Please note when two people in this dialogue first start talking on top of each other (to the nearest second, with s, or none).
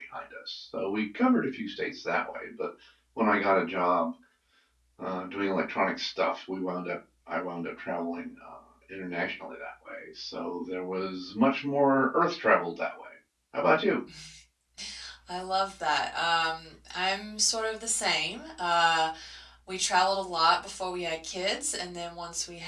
none